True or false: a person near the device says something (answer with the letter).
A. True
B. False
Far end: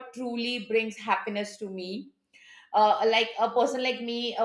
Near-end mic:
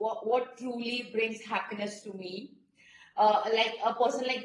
B